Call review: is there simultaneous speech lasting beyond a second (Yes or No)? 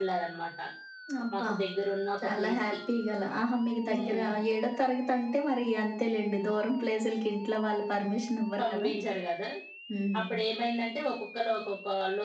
No